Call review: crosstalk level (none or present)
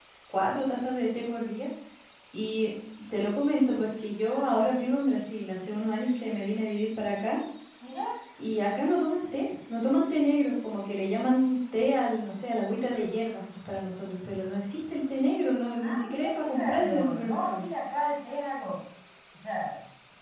present